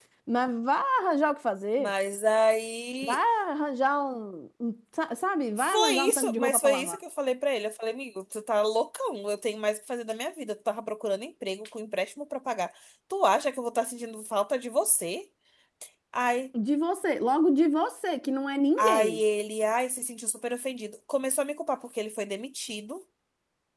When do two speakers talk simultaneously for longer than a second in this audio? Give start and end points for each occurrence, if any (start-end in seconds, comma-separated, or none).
5.6-7.0